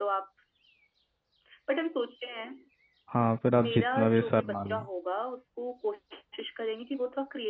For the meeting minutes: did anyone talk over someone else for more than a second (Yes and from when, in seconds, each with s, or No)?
Yes, from 3.5 s